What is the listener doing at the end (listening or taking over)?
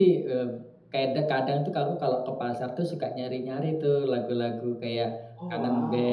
listening